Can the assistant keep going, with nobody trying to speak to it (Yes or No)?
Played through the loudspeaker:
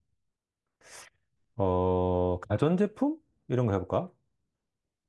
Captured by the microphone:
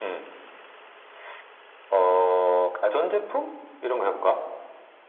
Yes